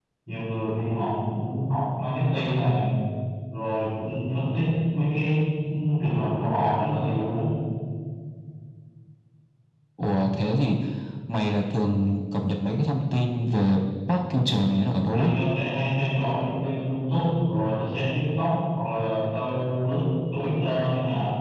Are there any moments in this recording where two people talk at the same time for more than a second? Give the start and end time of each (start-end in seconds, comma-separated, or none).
none